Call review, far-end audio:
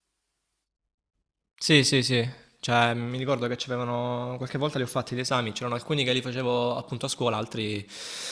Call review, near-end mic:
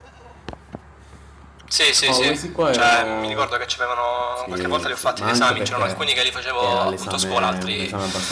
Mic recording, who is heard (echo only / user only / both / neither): both